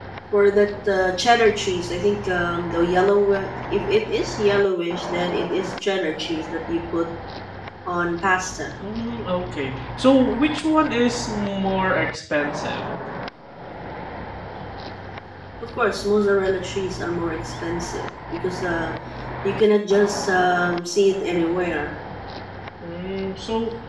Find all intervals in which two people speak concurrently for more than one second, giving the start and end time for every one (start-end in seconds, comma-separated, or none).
none